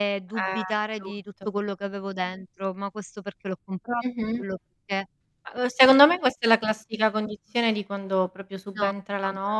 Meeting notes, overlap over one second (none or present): none